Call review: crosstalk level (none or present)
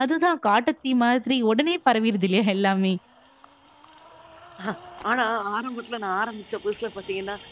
none